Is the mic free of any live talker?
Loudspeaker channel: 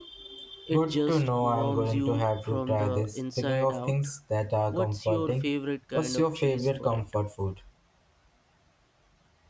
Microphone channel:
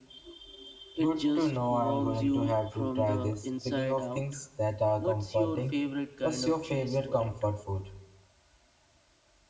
Yes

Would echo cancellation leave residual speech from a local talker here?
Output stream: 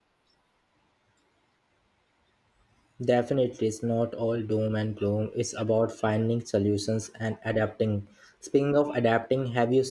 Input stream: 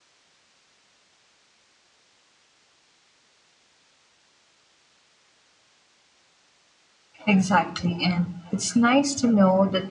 Yes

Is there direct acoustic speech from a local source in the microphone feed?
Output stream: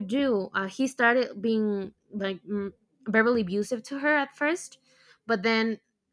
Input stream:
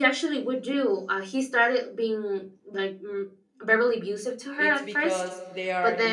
Yes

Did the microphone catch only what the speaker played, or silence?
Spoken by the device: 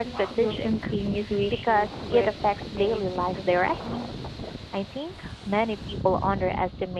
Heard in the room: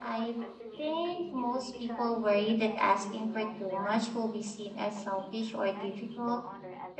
No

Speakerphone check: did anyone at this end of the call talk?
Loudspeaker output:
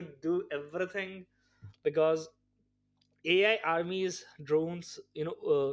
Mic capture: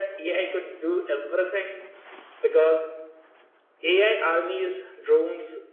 No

